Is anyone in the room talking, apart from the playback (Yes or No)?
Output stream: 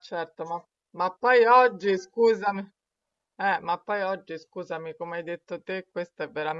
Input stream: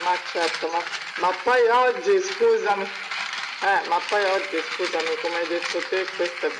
No